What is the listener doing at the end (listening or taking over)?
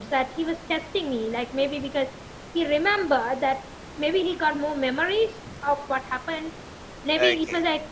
listening